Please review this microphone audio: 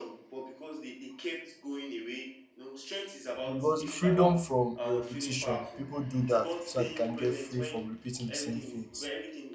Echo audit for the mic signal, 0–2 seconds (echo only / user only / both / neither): echo only